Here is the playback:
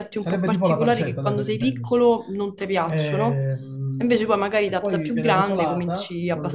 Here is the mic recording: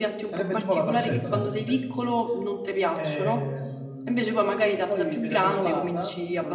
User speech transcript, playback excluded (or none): Sì, sì.